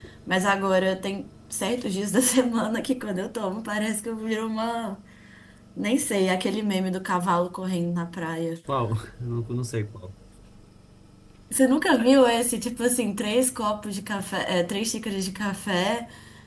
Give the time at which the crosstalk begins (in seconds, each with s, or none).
none